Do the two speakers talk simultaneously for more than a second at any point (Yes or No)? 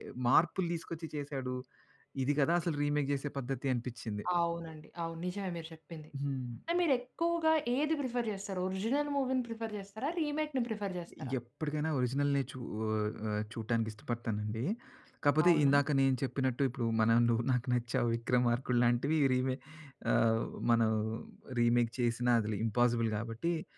No